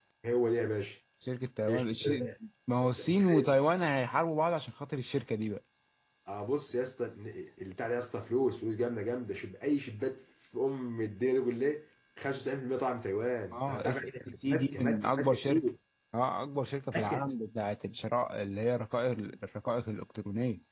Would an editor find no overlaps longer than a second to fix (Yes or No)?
No